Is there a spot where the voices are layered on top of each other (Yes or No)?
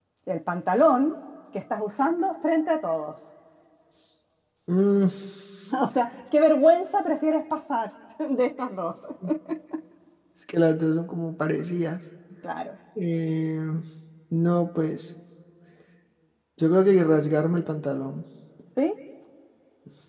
No